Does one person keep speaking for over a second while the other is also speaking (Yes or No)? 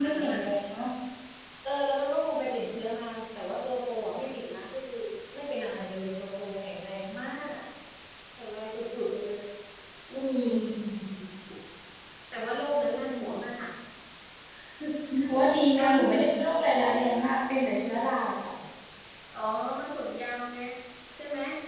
No